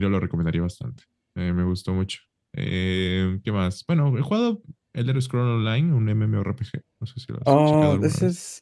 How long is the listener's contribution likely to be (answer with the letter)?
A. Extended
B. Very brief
A